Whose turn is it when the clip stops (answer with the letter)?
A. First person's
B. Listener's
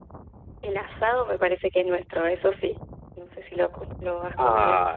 B